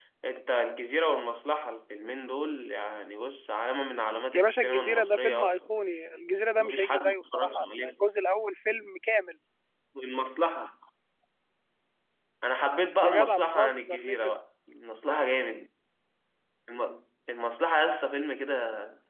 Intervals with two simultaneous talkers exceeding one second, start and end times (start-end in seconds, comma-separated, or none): 4.3-5.8, 6.6-8.0, 13.0-14.3